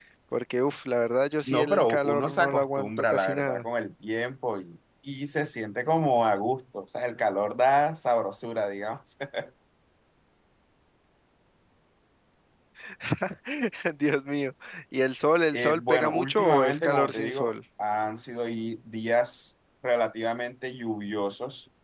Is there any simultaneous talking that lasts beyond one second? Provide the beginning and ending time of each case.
1.4-3.6, 15.5-17.5

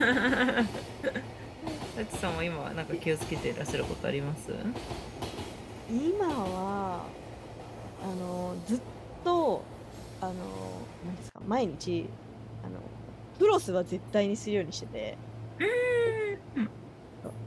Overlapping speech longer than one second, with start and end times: none

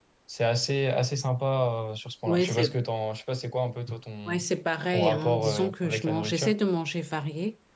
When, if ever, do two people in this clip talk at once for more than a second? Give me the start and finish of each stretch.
4.9-6.5

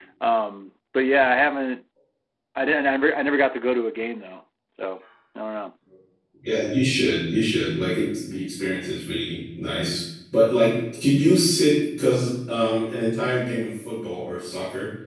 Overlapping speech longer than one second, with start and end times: none

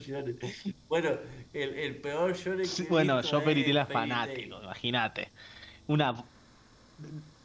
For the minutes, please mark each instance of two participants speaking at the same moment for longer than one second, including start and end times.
2.6-4.6

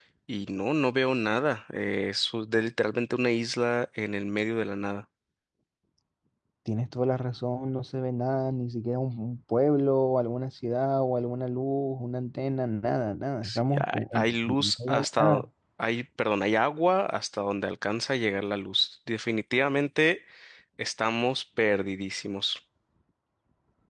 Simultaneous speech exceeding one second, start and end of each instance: 13.4-15.4

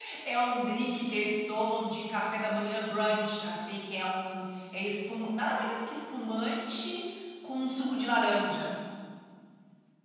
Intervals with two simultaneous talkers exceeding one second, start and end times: none

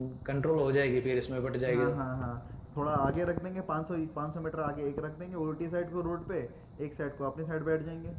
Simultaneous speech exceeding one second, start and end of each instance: none

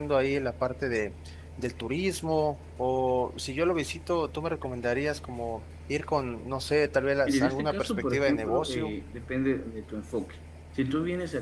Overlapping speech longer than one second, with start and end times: 7.3-8.9

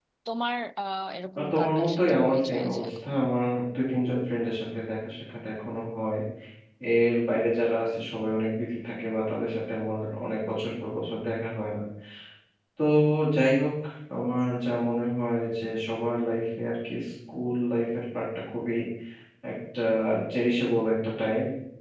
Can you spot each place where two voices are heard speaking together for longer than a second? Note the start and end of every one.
1.4-2.9

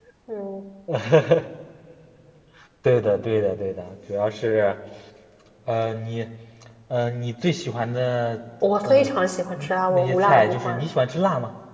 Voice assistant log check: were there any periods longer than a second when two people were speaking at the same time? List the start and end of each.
9.6-10.8

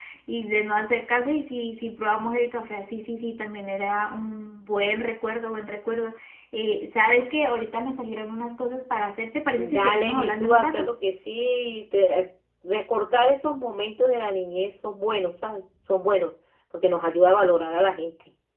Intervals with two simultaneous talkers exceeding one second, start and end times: 9.6-10.9

